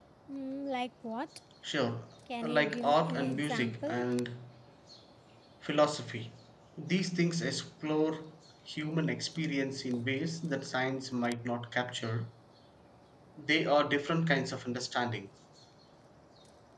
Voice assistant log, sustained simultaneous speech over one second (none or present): present